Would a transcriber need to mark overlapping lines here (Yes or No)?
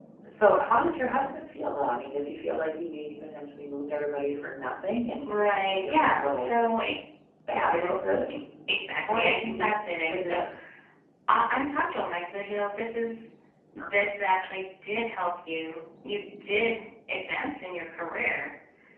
Yes